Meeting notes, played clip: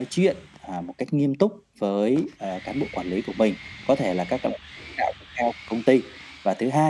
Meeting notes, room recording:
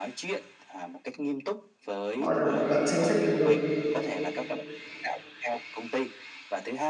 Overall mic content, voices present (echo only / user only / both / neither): both